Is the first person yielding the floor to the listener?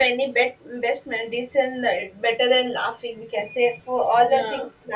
No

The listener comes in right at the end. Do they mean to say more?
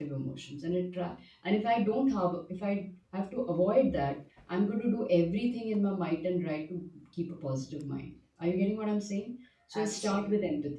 No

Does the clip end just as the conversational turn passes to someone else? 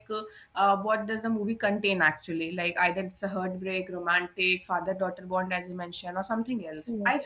No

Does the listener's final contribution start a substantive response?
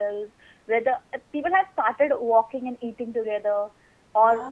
No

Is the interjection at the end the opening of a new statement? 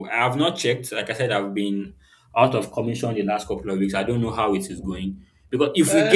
Yes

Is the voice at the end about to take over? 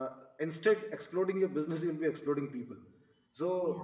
No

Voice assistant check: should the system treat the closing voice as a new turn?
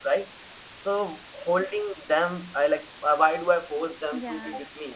No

